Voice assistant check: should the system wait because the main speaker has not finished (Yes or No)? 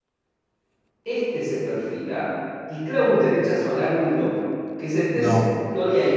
Yes